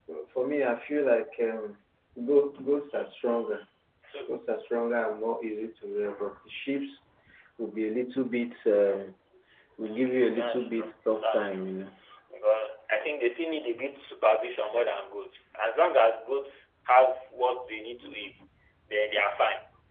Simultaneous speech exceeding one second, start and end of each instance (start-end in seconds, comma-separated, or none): 10.0-11.7